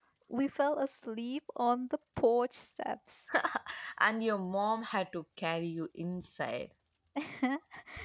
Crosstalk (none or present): none